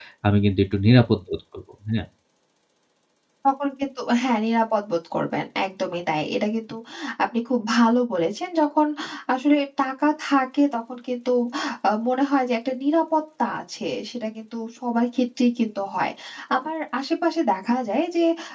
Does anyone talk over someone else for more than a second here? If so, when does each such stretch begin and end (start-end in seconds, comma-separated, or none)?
none